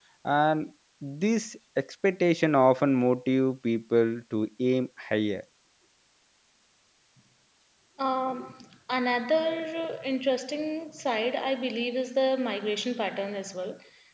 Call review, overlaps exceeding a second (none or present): none